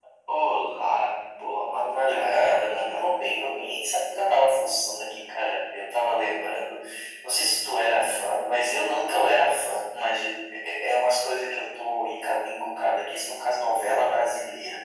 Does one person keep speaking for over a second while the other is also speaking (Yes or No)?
Yes